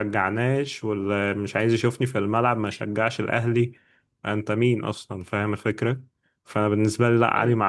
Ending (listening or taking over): listening